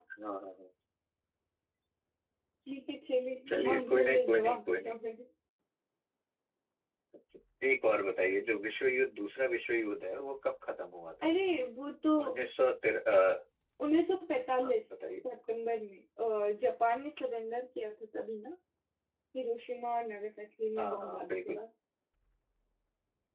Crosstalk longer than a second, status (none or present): present